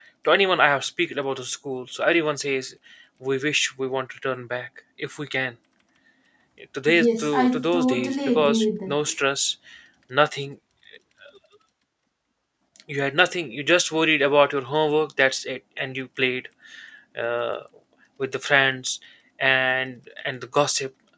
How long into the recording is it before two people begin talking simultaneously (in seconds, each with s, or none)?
6.9 s